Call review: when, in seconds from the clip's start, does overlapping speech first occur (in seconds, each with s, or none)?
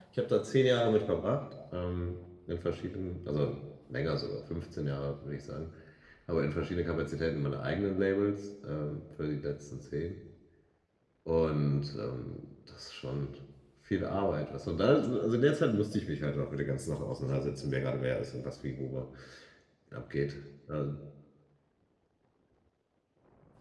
none